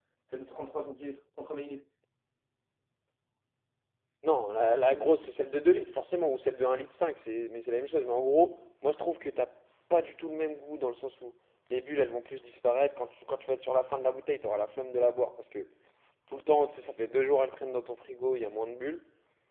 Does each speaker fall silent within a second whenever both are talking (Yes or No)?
Yes